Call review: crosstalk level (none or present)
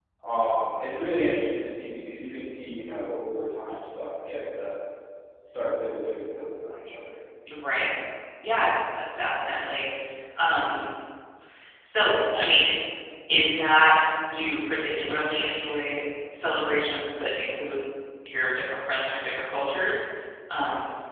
none